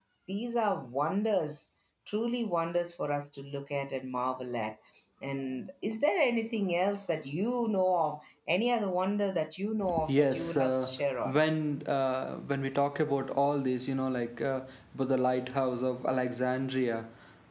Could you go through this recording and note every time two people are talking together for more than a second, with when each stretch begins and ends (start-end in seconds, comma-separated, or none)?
10.1-11.4